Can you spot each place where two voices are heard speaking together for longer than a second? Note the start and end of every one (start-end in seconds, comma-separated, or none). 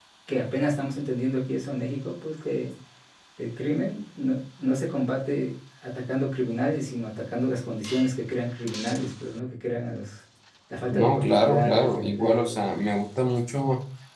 10.9-12.6